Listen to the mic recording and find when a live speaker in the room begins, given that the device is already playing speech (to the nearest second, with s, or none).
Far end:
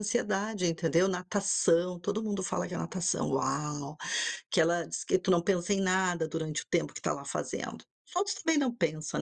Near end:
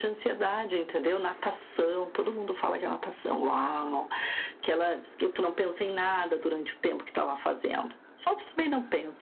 none